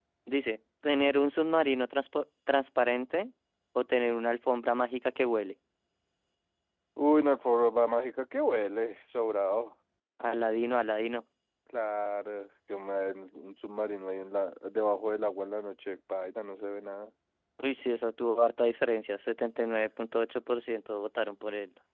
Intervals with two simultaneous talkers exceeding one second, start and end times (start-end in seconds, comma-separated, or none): none